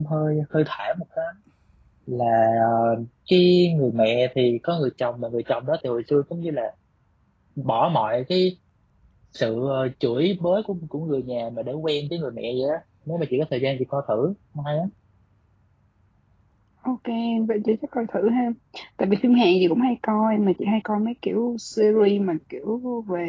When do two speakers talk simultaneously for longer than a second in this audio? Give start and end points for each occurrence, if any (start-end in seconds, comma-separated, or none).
none